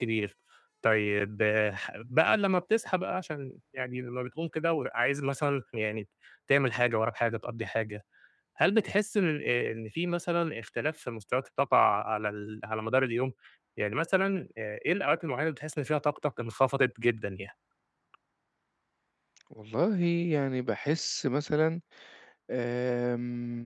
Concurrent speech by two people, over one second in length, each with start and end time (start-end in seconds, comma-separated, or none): none